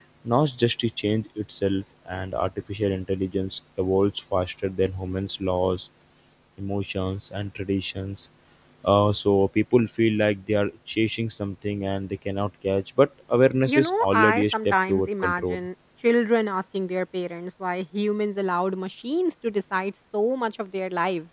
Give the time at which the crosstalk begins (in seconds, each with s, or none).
13.6 s